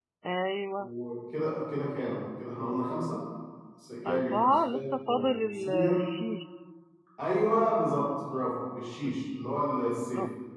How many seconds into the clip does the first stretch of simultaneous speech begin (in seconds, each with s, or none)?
4.1 s